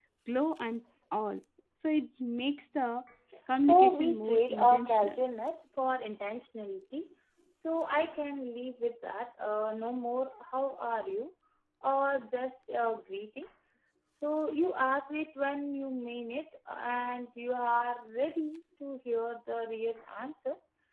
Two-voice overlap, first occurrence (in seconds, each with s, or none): 3.6 s